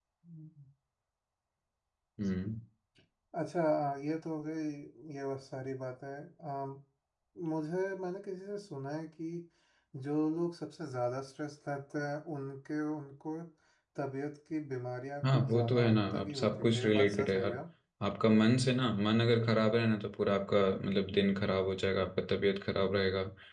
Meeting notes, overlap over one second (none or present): present